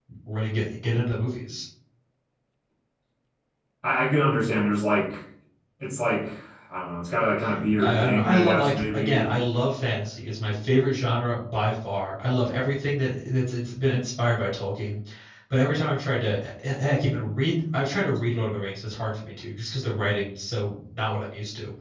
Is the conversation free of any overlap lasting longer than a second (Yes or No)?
No